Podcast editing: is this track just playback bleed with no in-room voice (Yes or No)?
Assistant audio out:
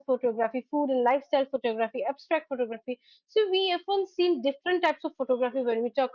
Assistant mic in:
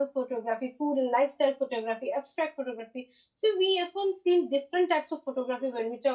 Yes